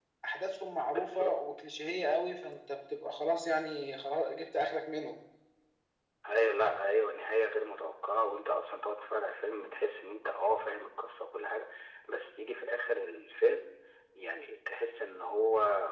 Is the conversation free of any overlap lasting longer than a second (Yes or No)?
Yes